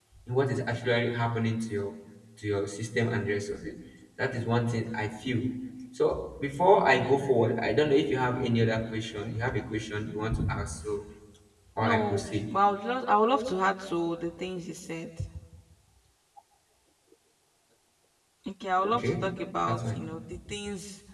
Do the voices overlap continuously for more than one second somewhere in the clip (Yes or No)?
Yes